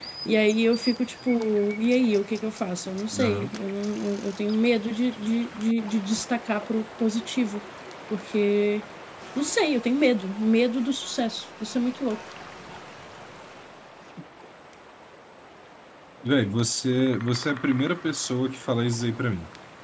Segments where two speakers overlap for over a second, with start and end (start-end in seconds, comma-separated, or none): none